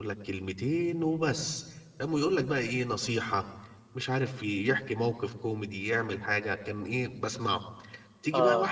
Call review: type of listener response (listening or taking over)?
listening